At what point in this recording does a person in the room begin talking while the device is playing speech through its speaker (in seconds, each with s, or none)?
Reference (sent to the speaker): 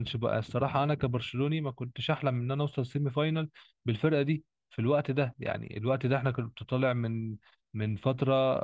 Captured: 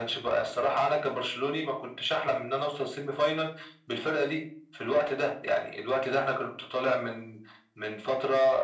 none